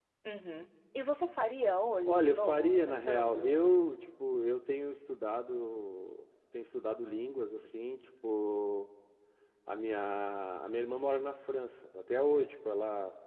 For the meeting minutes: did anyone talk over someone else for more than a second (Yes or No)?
Yes